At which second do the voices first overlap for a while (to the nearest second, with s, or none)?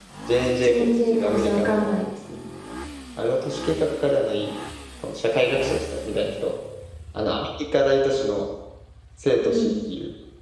1 s